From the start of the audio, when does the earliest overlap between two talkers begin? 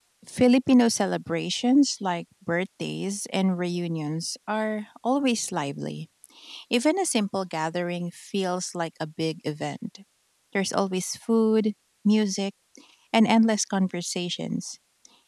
none

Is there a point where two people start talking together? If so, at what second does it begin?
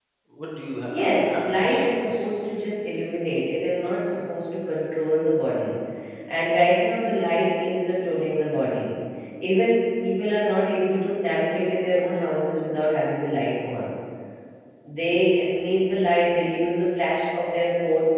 0.9 s

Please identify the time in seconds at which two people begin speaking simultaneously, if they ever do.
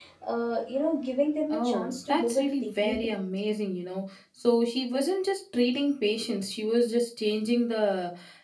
1.5 s

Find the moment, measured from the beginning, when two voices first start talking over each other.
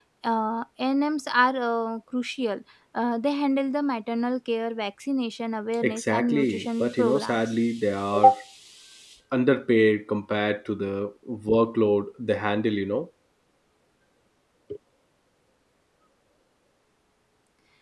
5.8 s

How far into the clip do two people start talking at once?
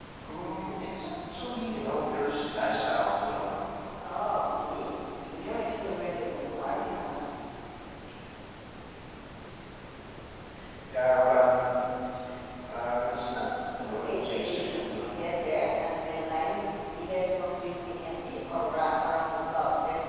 13.9 s

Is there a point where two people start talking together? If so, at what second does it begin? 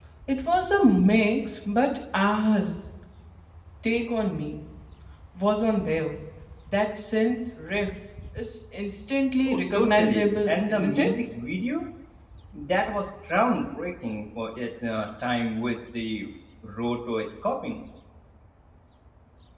9.4 s

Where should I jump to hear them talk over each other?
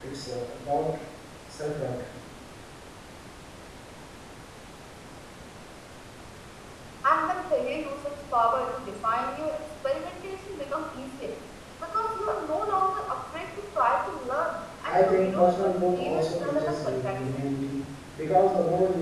14.8 s

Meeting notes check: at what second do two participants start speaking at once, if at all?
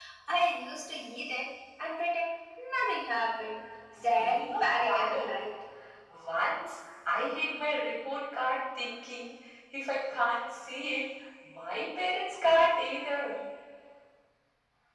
3.9 s

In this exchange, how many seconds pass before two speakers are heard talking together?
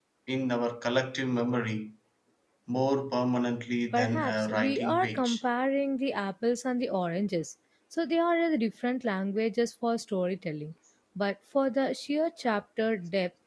3.9 s

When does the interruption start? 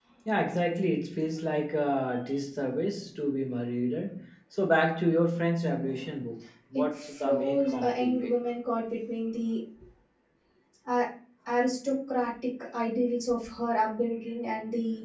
6.7 s

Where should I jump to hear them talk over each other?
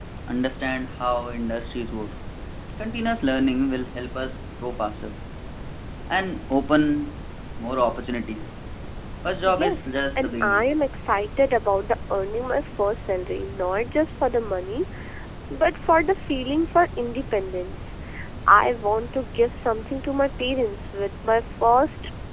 9.4 s

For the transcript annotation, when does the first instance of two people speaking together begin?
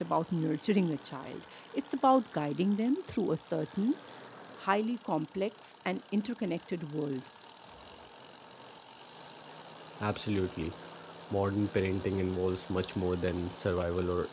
none

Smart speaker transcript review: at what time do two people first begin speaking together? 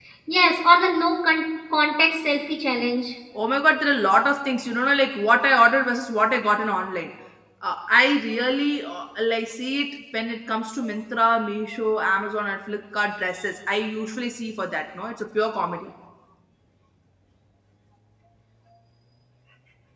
none

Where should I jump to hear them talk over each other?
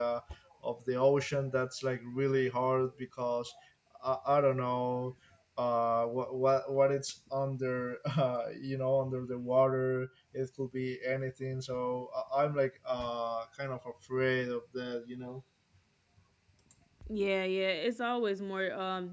none

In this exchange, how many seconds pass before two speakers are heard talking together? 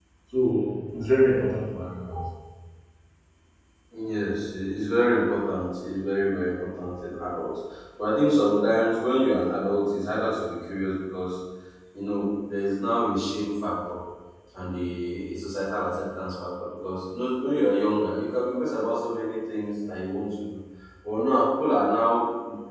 none

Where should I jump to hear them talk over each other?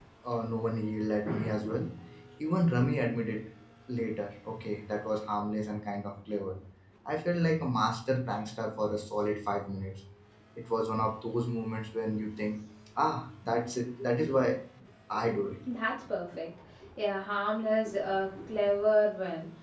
none

